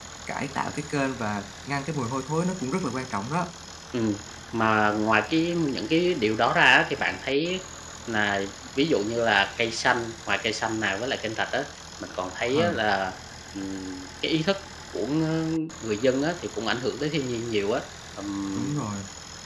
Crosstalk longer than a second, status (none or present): none